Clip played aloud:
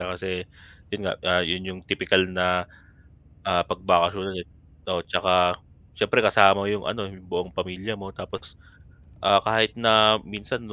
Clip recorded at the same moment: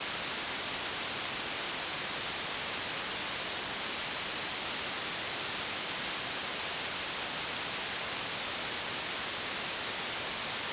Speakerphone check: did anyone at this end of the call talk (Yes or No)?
No